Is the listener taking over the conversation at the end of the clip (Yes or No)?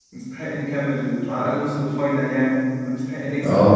Yes